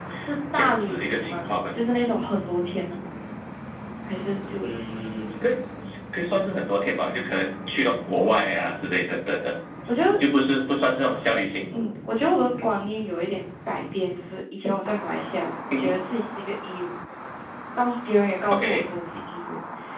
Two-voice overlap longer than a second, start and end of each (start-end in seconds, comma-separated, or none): 0.5-1.8